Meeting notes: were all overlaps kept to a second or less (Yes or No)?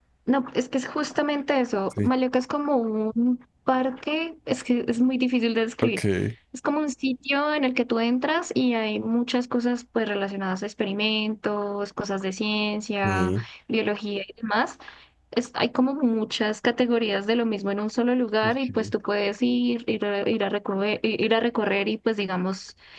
Yes